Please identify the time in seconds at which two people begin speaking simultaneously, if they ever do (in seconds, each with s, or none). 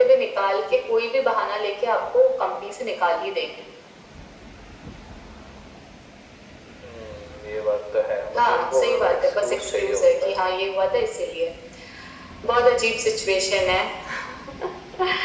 8.4 s